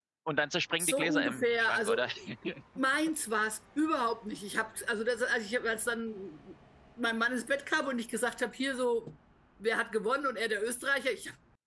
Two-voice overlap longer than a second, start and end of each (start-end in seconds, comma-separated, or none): 0.8-2.0